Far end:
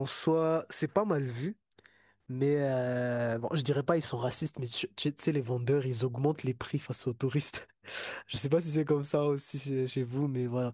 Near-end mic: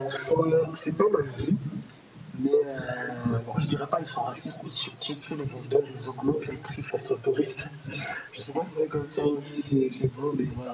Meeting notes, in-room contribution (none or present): none